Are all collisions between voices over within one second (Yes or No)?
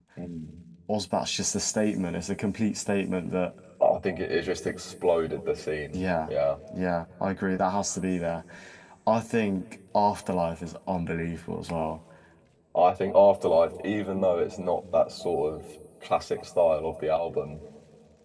Yes